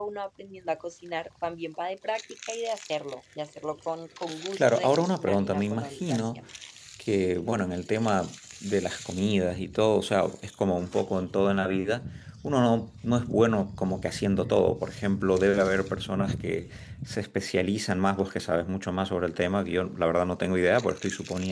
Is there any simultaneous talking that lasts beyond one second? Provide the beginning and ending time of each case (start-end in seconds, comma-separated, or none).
4.5-6.3